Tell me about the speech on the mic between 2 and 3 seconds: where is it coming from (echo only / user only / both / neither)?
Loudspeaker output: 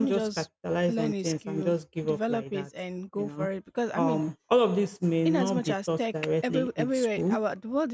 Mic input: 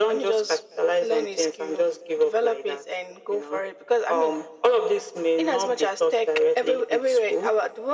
echo only